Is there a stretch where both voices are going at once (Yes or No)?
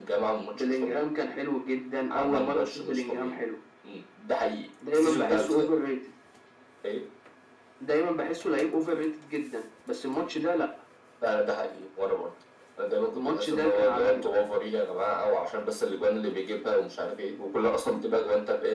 Yes